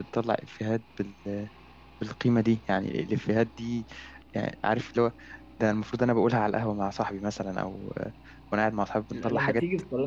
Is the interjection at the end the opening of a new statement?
Yes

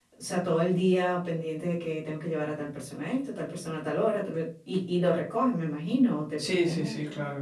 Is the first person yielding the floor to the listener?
Yes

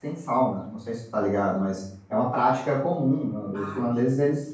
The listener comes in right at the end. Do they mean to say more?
No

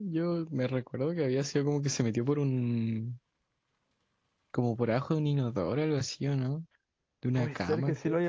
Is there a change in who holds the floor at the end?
Yes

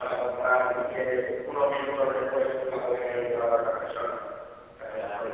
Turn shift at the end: Yes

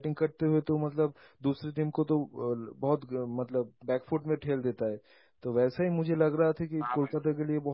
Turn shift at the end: No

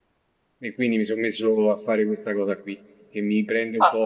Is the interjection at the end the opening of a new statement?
No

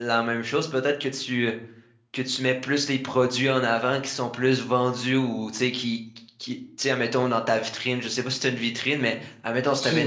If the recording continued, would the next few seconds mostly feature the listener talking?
No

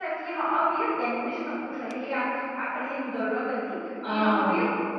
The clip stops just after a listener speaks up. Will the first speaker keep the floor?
Yes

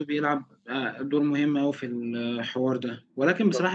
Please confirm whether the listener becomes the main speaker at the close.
No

